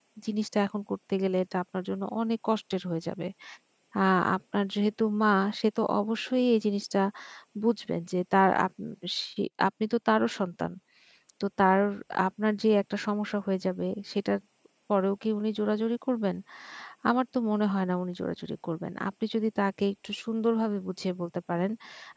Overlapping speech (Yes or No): No